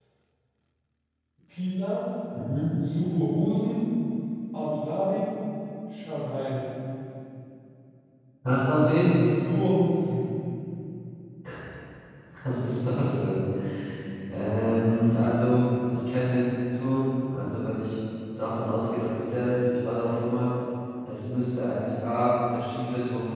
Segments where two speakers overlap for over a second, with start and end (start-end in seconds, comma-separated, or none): none